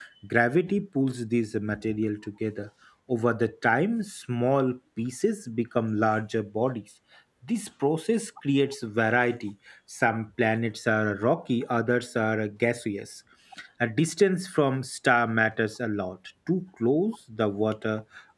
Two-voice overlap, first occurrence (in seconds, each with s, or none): none